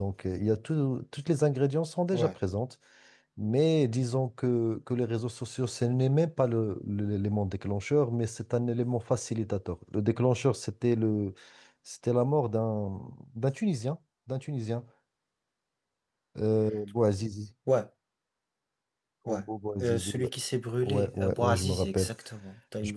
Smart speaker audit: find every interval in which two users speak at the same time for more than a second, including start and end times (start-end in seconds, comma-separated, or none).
20.8-22.1